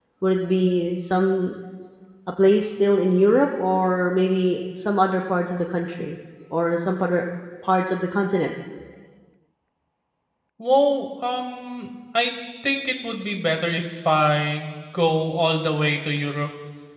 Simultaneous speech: No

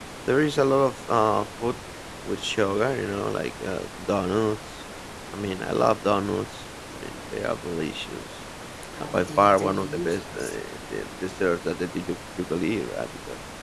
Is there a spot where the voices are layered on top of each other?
Yes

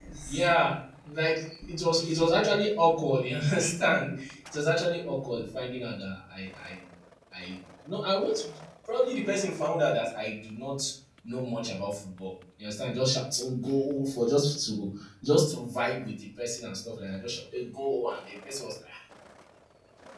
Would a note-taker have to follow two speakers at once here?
No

